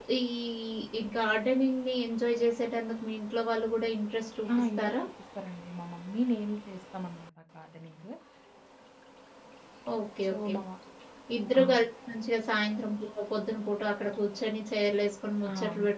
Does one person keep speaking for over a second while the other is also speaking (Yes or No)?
No